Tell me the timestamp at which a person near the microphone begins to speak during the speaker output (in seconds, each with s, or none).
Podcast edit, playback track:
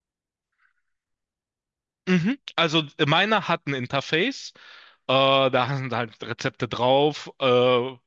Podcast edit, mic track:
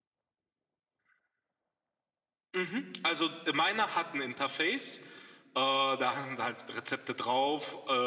none